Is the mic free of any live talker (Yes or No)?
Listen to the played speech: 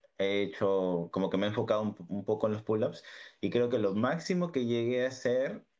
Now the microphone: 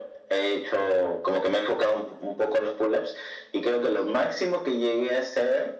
Yes